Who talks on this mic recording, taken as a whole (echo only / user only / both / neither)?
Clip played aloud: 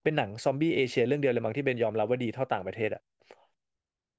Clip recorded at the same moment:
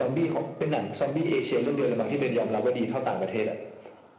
both